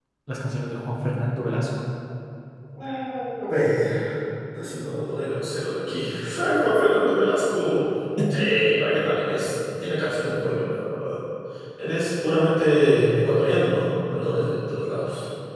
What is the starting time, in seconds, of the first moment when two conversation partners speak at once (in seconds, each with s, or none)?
none